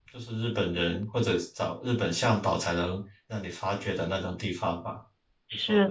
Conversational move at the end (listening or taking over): taking over